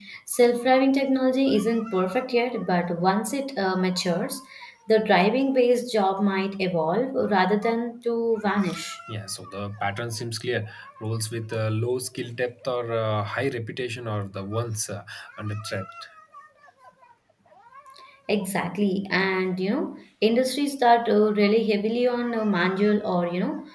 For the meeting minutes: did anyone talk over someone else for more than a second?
No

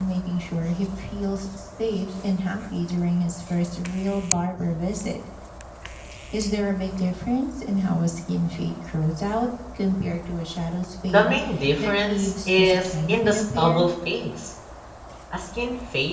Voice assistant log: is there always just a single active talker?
No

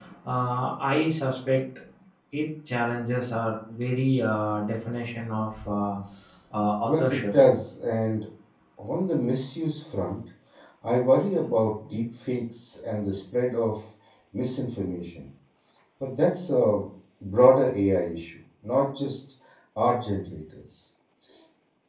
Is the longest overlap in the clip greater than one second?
No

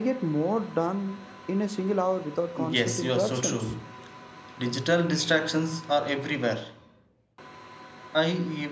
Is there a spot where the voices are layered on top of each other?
Yes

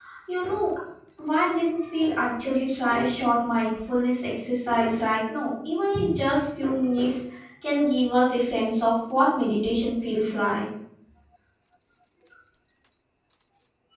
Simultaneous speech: No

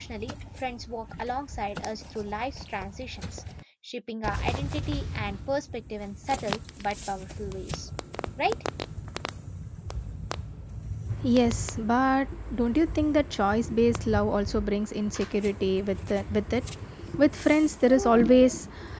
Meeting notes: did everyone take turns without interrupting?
Yes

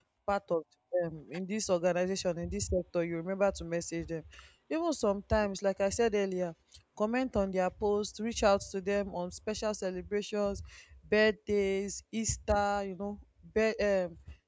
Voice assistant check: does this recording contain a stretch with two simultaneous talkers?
No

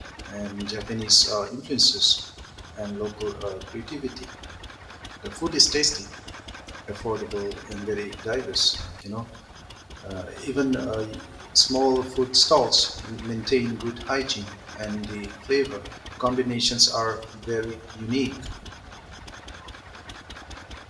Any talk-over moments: No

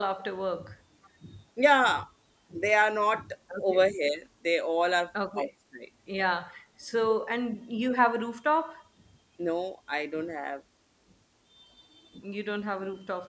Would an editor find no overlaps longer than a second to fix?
Yes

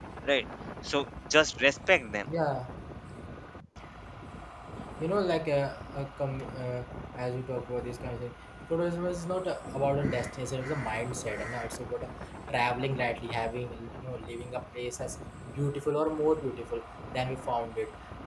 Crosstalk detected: No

